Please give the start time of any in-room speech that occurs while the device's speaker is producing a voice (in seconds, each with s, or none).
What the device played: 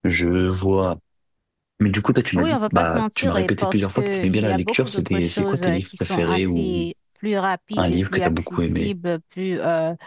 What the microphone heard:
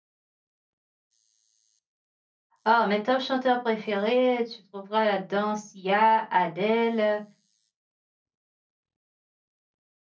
2.6 s